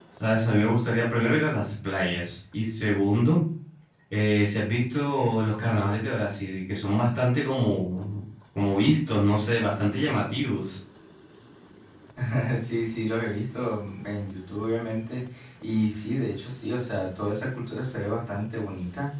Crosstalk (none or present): none